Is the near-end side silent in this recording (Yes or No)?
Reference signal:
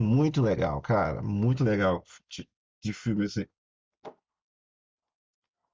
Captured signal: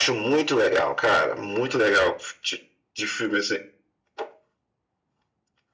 Yes